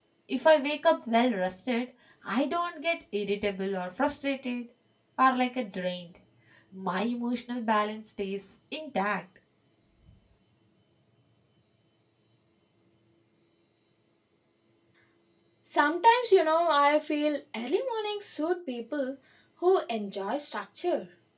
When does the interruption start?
none

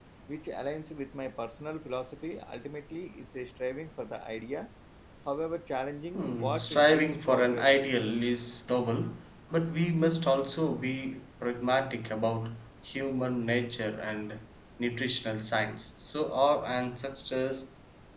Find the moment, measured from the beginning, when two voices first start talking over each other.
6.1 s

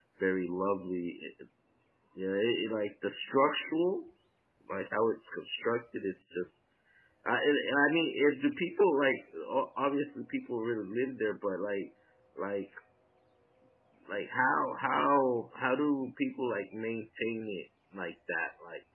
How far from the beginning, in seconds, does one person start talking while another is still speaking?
none

